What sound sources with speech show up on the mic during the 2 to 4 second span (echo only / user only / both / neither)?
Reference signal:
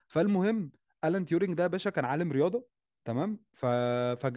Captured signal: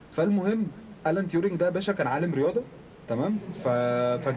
both